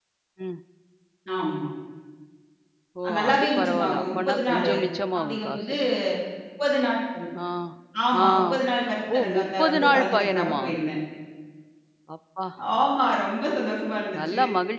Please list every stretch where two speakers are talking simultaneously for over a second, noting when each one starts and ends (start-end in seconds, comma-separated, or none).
3.2-4.7, 9.1-10.6